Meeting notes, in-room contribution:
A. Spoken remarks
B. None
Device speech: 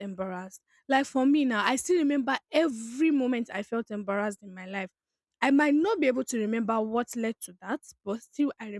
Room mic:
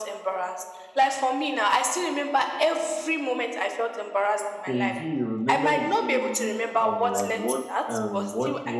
A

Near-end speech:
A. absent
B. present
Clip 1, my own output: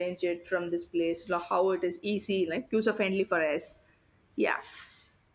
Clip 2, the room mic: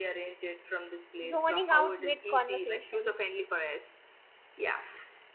B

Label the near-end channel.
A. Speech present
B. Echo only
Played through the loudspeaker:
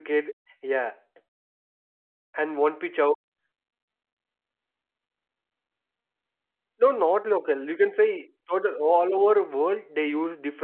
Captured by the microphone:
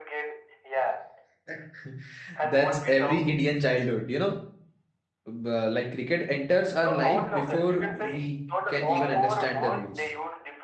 A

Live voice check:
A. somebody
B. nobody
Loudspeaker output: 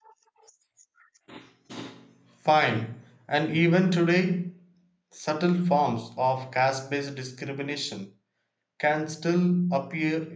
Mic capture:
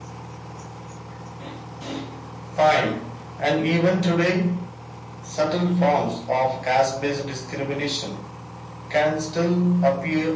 B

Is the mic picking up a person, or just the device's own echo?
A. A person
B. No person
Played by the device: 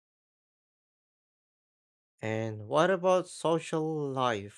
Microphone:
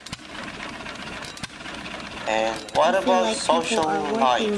A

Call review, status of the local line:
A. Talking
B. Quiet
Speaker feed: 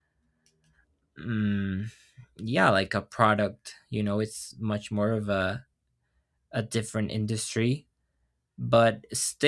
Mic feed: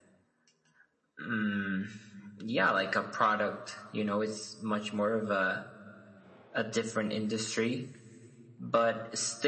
B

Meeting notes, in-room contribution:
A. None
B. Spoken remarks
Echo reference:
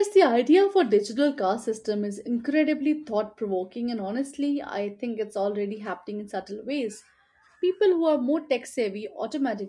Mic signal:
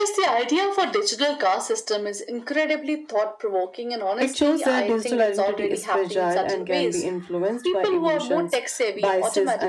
B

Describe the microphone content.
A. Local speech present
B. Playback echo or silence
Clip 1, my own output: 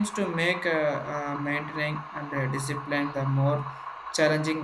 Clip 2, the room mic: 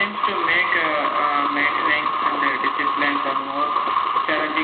B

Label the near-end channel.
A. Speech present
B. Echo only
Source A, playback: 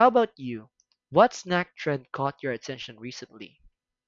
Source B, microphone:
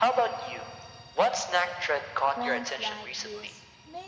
A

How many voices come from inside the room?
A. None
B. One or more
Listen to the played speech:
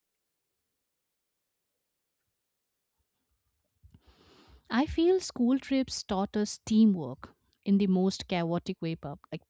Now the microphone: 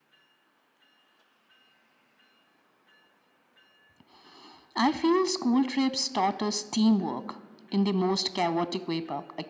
A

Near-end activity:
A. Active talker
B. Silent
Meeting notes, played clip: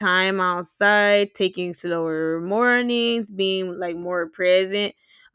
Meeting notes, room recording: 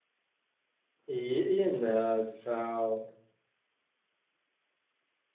A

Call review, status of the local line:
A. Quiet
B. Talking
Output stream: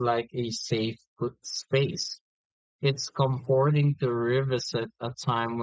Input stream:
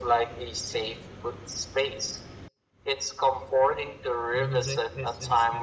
B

